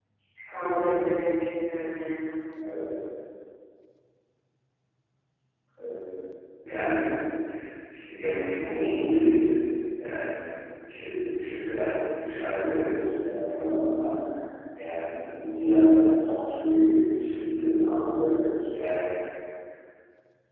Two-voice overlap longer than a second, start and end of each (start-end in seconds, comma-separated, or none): none